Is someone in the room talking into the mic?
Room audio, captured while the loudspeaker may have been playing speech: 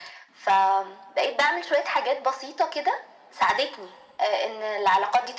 No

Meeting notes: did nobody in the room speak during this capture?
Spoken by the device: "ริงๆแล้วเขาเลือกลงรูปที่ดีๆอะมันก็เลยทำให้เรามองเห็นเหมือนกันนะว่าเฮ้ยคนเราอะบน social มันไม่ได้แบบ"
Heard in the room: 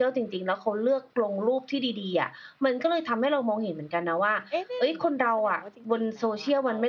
No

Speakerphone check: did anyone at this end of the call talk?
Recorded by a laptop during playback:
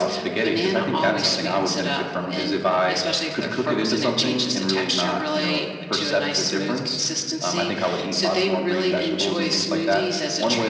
No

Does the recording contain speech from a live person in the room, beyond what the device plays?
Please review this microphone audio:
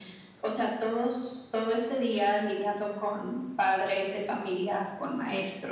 Yes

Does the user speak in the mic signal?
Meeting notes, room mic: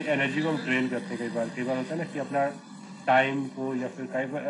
Yes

